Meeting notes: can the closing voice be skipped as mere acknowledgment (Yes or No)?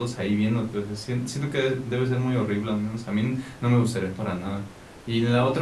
Yes